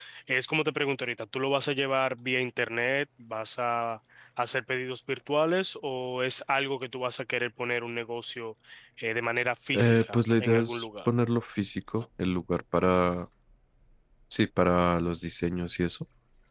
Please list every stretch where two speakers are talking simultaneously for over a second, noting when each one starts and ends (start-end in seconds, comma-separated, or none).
9.8-11.1